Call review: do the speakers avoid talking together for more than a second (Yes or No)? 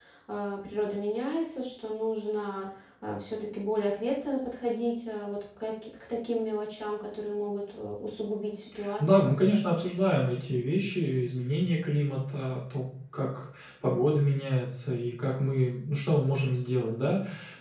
Yes